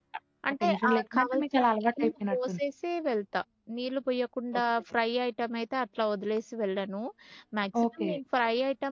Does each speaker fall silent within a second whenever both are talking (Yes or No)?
No